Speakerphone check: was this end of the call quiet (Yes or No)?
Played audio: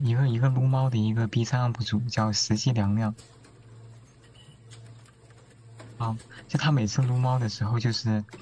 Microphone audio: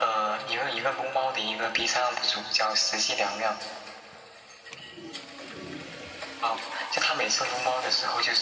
Yes